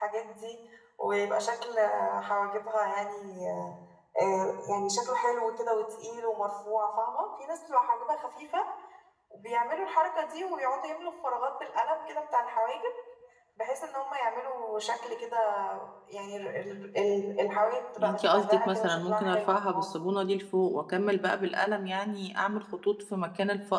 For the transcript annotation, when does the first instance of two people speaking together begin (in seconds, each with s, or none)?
18.0 s